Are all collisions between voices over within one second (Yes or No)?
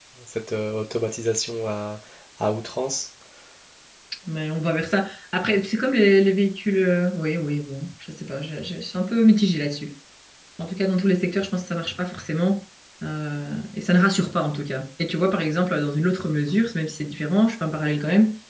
Yes